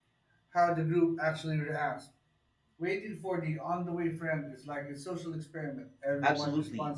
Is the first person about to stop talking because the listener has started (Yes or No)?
Yes